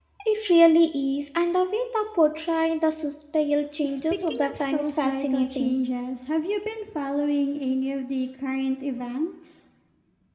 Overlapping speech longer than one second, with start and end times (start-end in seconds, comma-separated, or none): 3.8-5.7